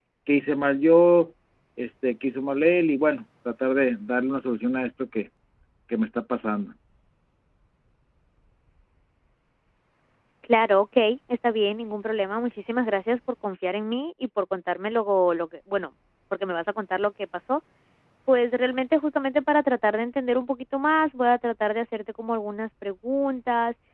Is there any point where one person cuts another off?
No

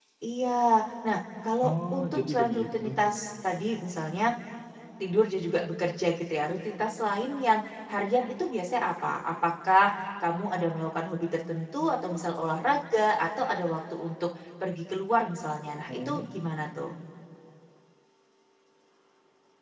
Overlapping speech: Yes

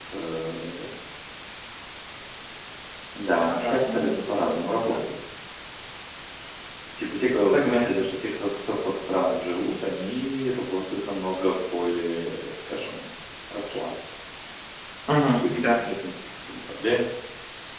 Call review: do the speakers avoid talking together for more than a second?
No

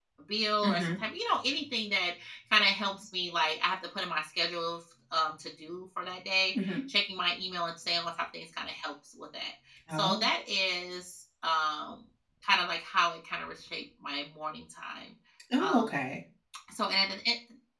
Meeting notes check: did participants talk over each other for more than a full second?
No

